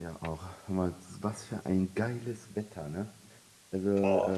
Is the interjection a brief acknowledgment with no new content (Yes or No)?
Yes